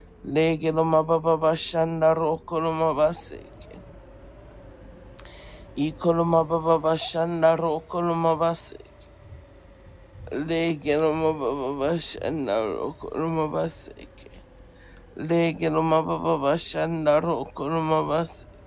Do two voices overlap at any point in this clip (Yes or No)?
No